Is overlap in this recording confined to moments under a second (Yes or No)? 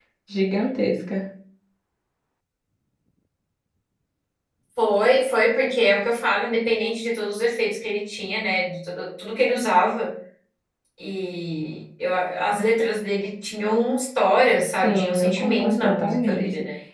No